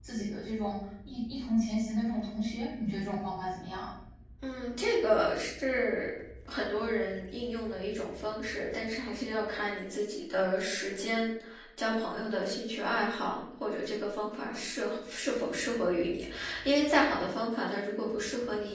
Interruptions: none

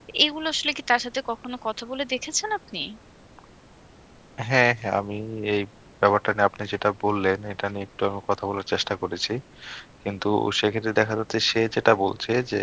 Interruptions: none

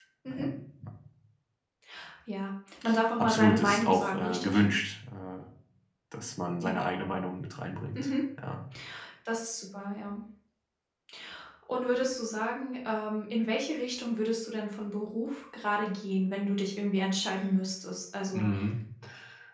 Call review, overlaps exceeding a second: present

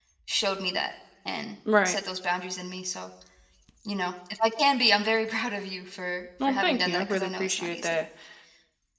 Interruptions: present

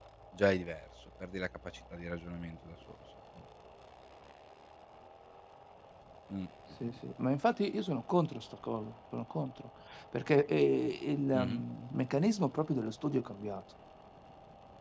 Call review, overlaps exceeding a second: none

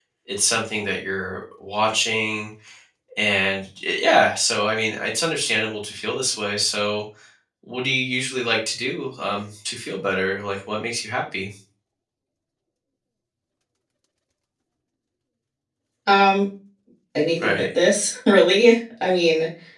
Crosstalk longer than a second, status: none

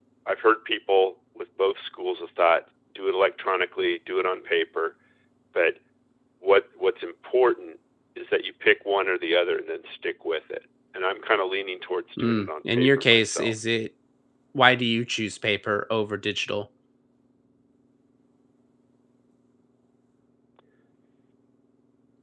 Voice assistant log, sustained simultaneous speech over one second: present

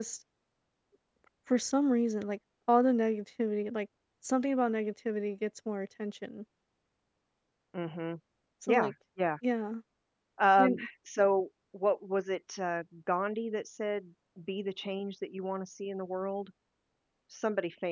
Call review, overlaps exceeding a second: none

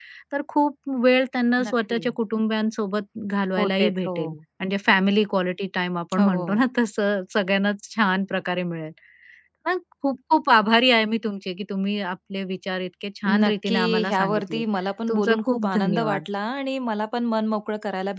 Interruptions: present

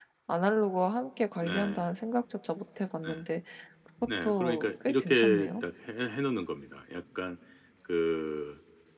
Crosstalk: present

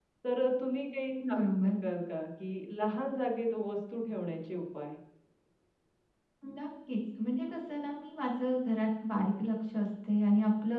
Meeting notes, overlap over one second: none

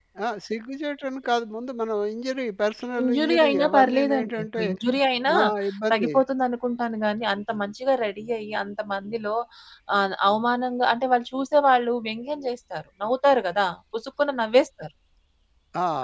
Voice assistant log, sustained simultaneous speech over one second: present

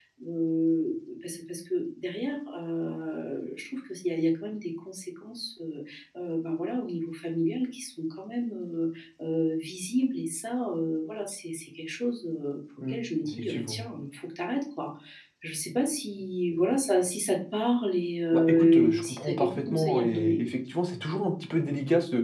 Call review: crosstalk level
present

